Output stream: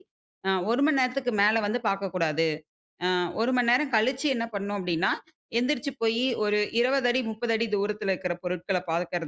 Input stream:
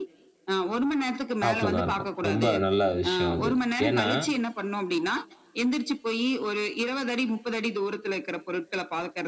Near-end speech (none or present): present